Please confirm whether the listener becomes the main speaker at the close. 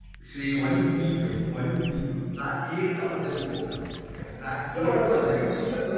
Yes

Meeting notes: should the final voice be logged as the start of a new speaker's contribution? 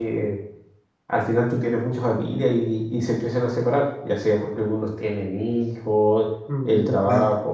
No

